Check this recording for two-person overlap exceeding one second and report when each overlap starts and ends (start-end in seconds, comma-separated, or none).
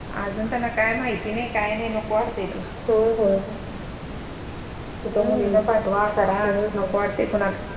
none